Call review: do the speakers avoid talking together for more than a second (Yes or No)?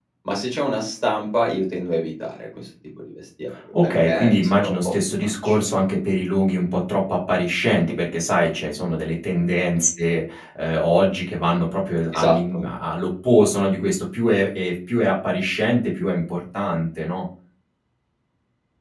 No